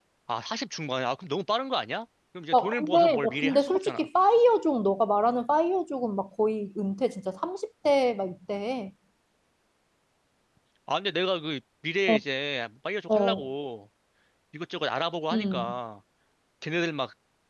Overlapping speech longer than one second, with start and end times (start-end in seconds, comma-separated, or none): 2.5-4.1